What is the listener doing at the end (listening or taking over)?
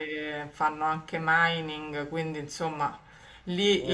listening